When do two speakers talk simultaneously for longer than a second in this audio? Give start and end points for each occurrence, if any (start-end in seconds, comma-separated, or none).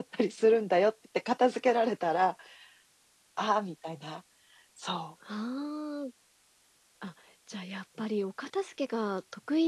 none